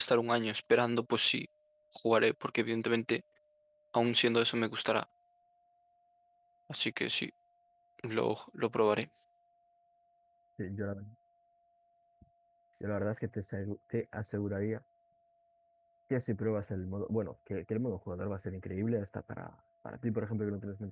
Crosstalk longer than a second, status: none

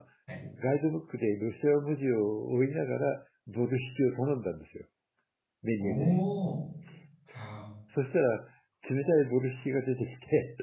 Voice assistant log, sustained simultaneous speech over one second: none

